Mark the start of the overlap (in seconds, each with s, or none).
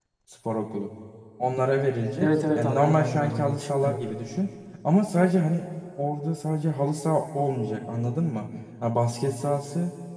2.2 s